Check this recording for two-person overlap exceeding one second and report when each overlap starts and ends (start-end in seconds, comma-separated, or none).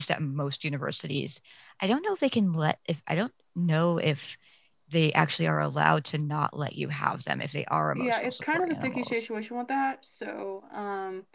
8.0-9.2